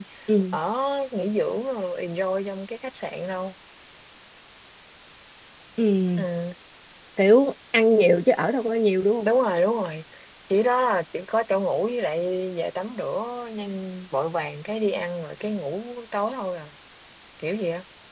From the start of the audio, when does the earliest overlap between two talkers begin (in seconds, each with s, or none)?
none